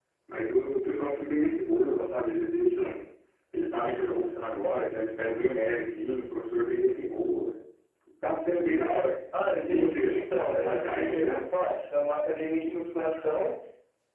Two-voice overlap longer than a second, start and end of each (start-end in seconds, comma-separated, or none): 9.7-11.4